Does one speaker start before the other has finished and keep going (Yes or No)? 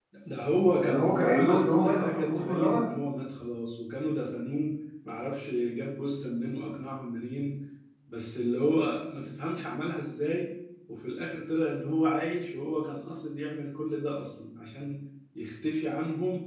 Yes